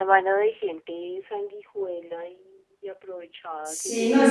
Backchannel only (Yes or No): No